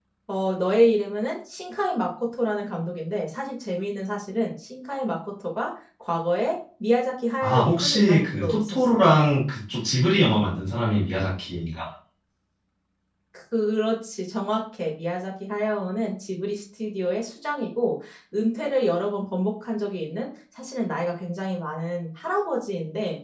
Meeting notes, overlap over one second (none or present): present